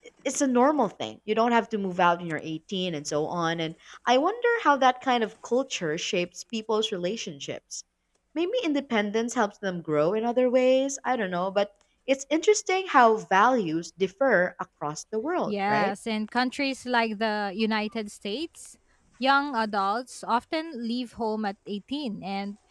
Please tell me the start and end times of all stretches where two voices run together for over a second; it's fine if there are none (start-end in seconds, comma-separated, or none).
none